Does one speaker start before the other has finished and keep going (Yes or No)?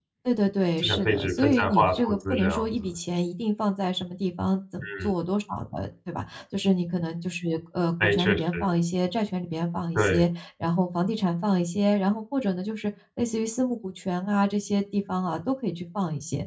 Yes